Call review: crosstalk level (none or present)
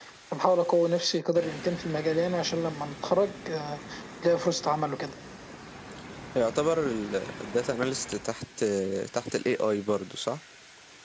none